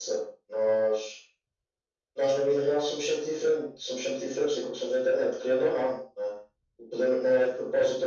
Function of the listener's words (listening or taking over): listening